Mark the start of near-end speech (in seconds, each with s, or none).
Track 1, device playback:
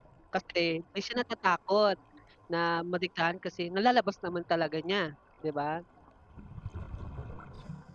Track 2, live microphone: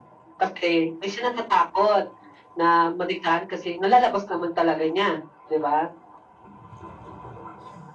none